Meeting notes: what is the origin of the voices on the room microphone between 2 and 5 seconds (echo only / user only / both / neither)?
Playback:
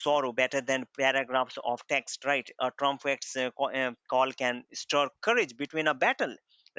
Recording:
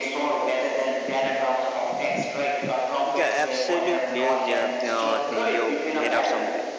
both